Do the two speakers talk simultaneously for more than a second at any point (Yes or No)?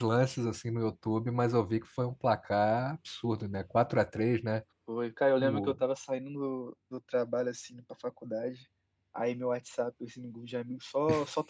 No